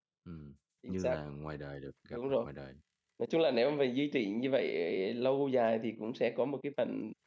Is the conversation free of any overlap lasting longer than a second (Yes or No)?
Yes